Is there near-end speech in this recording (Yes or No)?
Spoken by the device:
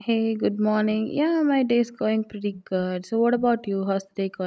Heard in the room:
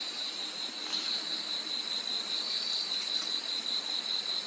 No